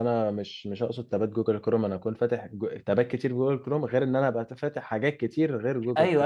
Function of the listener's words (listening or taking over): taking over